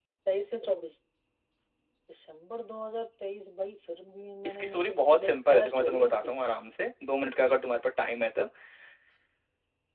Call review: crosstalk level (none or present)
present